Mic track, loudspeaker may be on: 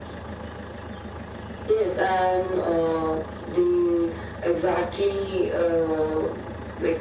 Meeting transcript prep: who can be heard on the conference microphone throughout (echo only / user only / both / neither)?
echo only